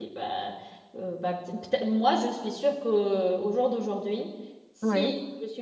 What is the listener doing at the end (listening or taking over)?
listening